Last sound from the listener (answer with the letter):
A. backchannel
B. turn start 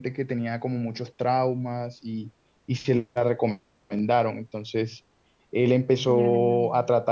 A